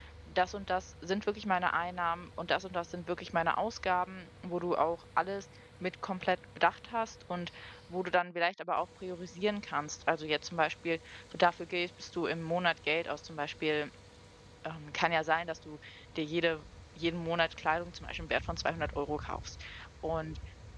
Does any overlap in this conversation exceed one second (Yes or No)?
No